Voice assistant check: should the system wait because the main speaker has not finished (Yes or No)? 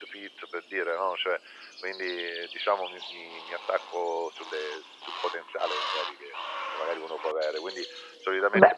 Yes